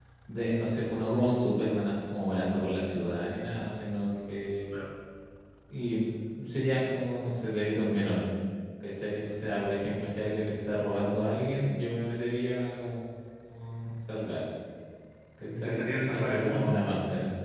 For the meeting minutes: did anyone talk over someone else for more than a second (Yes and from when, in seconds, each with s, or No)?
Yes, from 15.5 s